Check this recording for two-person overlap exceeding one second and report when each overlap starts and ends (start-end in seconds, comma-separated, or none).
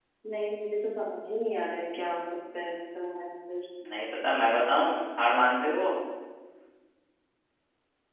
none